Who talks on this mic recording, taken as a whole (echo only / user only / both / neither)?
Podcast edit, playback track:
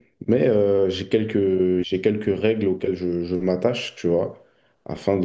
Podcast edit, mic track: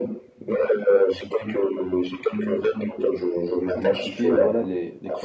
both